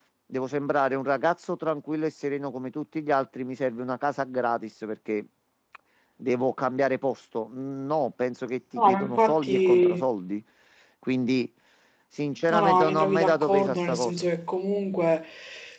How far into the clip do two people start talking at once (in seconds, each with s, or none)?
8.8 s